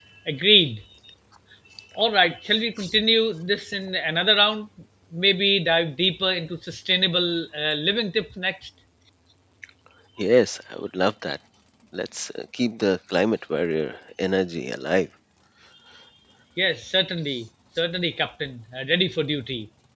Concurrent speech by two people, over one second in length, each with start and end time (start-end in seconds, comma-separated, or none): none